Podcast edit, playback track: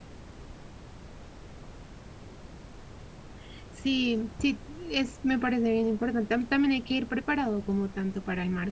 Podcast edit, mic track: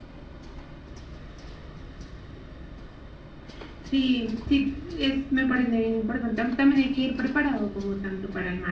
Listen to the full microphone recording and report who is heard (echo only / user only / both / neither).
echo only